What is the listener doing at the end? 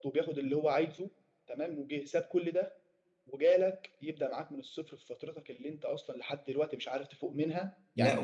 listening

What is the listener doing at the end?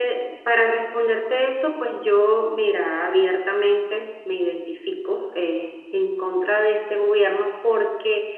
listening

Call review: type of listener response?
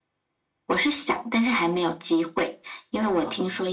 listening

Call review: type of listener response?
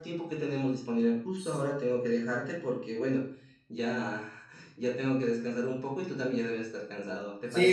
taking over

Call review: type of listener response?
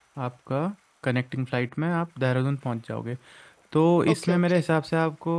listening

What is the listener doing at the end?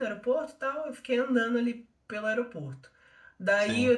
listening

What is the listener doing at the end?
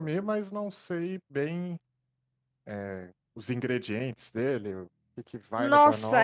taking over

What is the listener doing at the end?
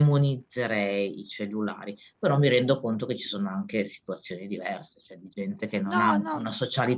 listening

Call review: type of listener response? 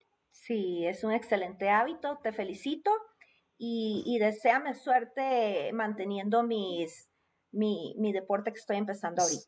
taking over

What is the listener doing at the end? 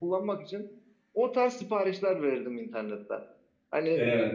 listening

